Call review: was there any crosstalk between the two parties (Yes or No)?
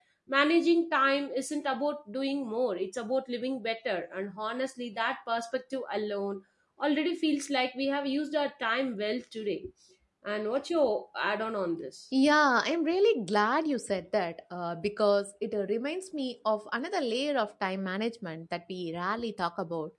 No